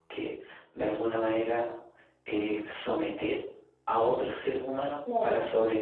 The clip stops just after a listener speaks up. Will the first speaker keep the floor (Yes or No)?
Yes